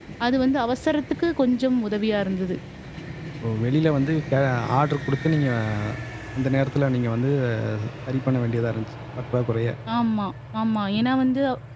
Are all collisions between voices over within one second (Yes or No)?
Yes